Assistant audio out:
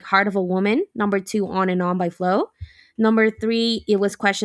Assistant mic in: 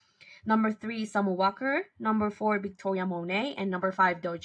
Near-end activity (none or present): present